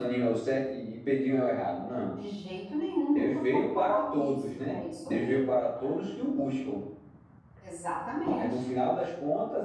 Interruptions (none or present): present